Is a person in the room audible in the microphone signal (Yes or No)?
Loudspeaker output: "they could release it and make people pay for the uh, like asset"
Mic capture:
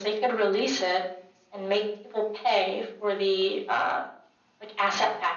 No